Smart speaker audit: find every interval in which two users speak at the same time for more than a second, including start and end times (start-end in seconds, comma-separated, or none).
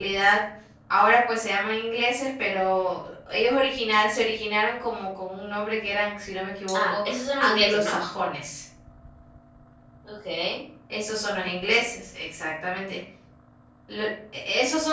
6.8-8.0